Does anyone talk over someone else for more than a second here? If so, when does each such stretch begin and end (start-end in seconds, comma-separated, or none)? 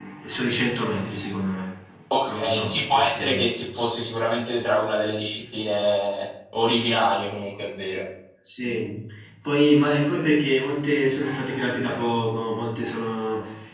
2.3-3.5